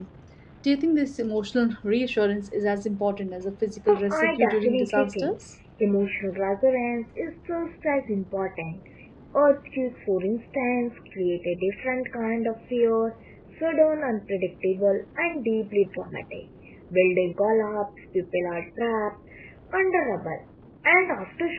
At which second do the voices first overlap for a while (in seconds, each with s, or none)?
3.9 s